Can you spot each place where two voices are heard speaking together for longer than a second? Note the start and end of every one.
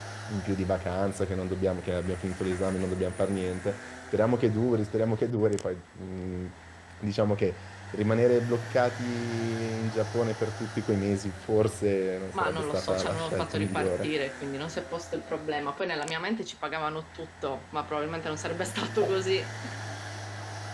12.3-14.1

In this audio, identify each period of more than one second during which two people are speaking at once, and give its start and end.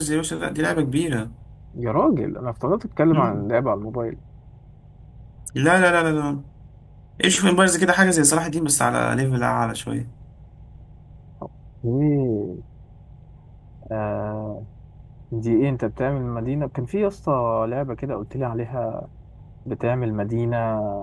none

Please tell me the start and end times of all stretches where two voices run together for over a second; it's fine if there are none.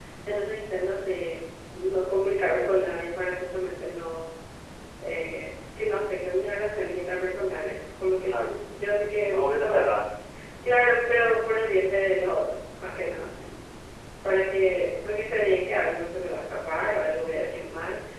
8.2-9.9

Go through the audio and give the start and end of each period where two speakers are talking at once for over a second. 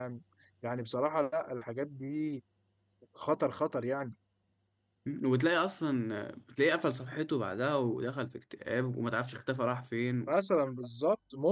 none

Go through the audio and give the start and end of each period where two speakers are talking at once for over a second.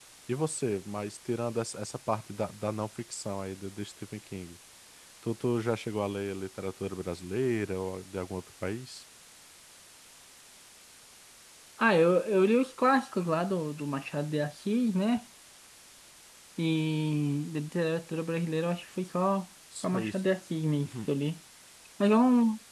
none

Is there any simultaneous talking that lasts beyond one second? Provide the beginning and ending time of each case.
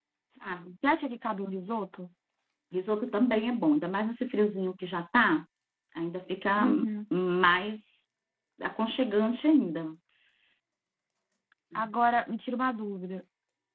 none

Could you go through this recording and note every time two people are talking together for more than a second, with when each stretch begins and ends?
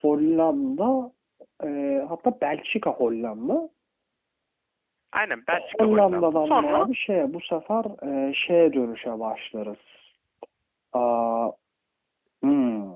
5.5-6.9

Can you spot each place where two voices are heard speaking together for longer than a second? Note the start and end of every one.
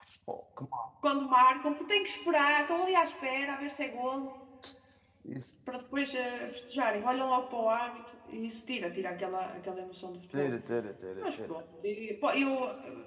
none

